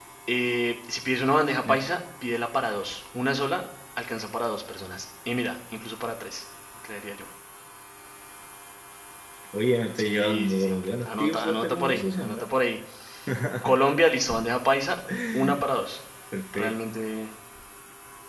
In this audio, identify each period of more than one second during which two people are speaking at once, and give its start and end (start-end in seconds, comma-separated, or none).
10.0-12.4